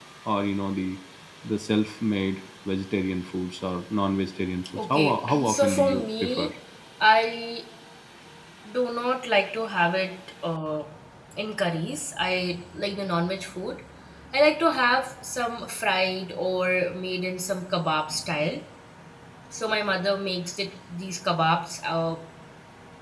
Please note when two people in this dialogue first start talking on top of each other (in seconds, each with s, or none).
4.8 s